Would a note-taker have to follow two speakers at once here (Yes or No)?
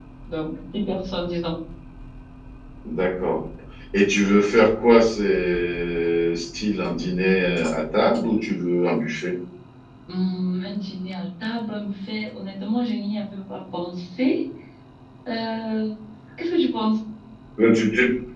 No